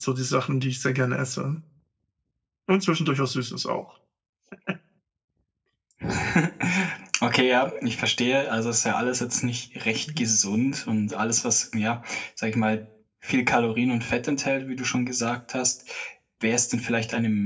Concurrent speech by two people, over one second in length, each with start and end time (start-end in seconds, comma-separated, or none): none